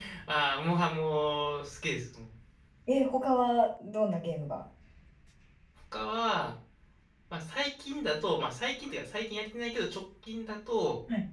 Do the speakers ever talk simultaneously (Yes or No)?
No